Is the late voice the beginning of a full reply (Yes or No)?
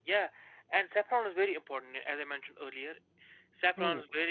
No